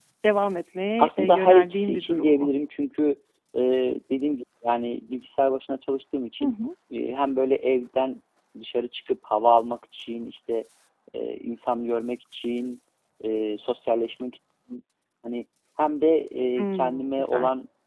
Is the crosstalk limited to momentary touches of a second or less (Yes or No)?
No